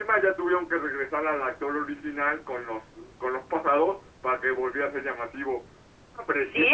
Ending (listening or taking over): taking over